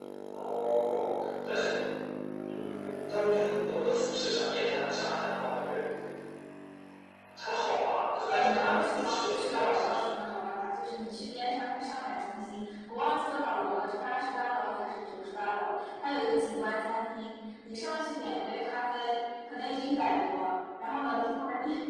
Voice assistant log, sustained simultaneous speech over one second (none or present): present